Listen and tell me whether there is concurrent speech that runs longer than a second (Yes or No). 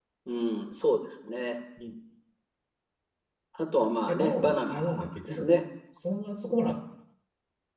Yes